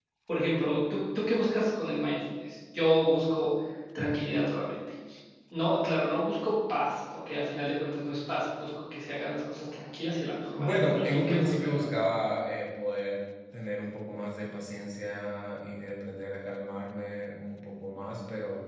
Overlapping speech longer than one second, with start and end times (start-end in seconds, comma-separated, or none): 10.6-12.1